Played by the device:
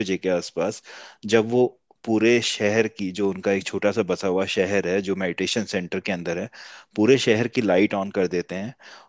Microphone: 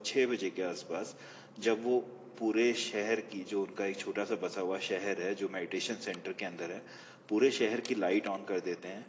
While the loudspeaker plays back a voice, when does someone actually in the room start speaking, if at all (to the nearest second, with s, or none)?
none